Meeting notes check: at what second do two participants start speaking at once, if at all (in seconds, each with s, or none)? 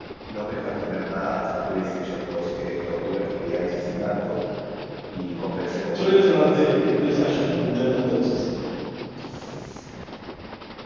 5.9 s